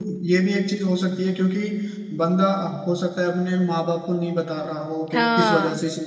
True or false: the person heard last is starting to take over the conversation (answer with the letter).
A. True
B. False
B